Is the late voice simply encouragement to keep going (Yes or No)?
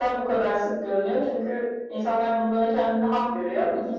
Yes